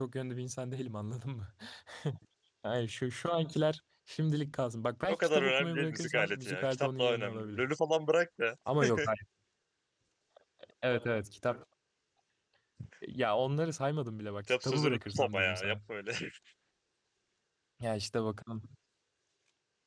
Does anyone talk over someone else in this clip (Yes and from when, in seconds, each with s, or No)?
Yes, from 5.1 s